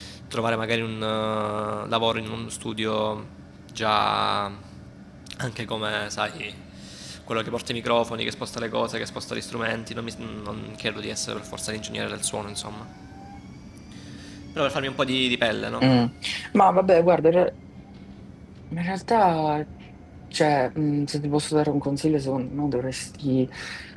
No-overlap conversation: Yes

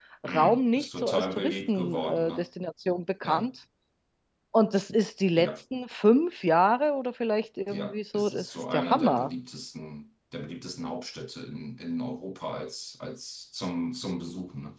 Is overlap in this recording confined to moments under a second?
No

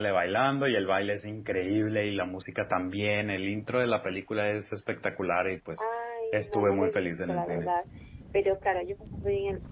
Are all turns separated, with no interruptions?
No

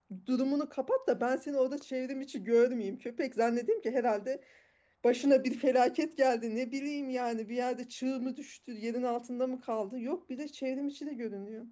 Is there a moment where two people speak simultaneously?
No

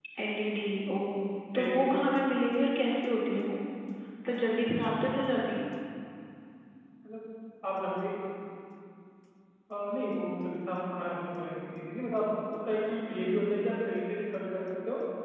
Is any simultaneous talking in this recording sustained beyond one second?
No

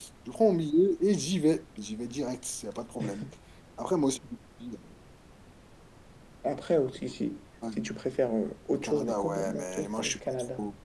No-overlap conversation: No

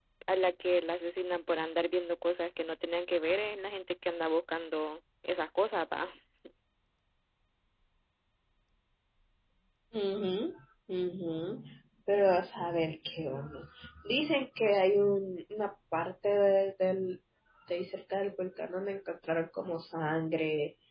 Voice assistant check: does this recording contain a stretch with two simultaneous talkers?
No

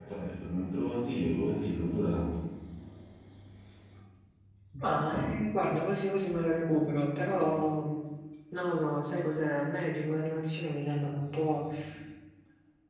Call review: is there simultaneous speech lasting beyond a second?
No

